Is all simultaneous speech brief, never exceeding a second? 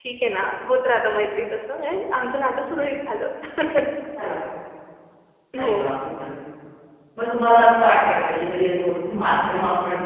Yes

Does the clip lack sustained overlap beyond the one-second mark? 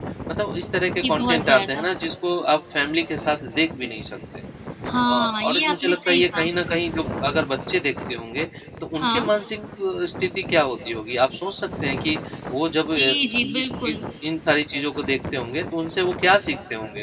No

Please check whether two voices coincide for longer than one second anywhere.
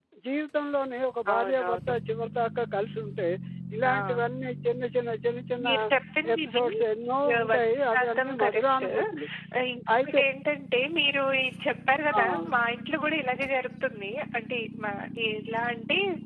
Yes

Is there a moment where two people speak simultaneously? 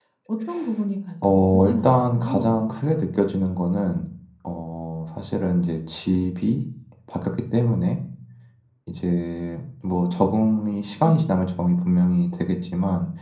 Yes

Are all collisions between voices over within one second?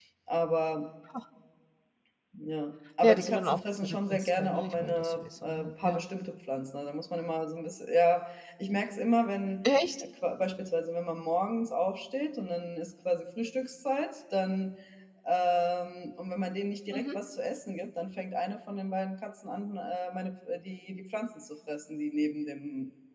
No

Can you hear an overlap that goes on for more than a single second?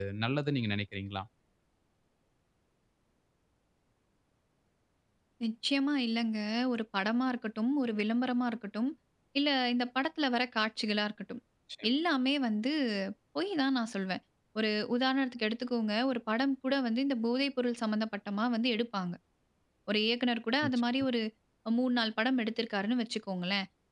No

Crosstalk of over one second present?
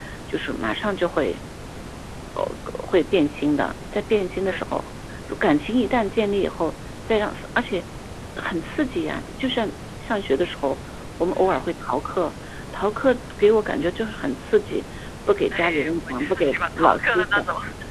Yes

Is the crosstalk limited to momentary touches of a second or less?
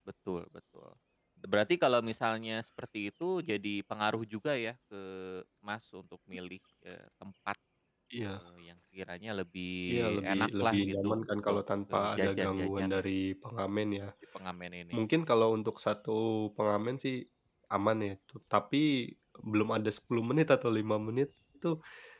No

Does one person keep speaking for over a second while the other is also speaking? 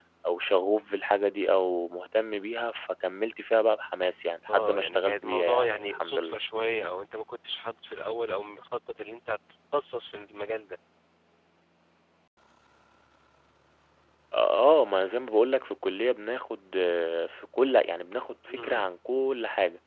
Yes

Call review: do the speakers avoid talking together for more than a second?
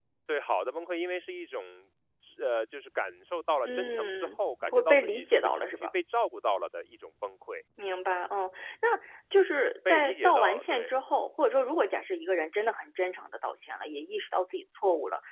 No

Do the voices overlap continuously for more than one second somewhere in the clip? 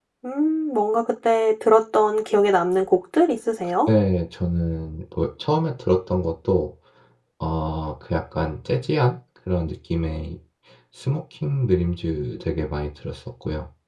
No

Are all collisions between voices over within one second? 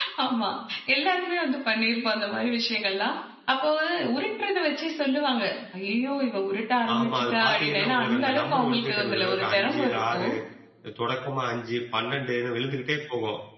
No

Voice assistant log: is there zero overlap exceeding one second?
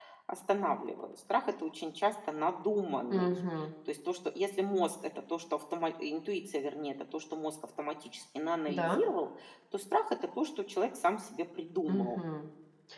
Yes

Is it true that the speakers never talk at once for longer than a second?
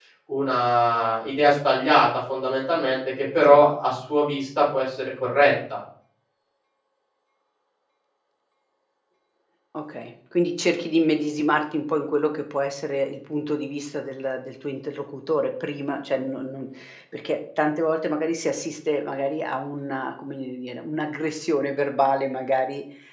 Yes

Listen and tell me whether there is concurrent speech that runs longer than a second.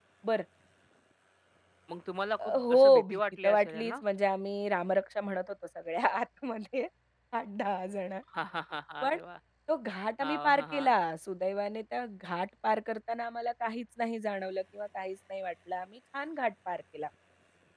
Yes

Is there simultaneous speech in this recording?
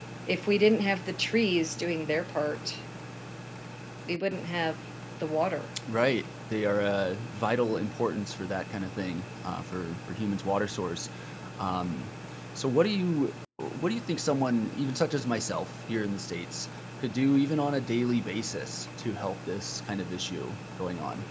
No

